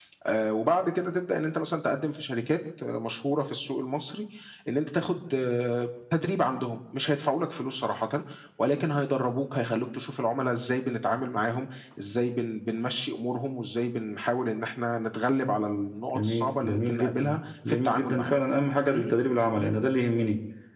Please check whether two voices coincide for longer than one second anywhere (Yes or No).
Yes